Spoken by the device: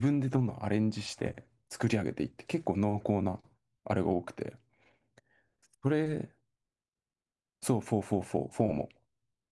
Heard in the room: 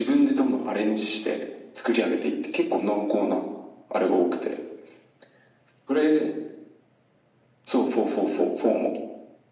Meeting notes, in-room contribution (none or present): none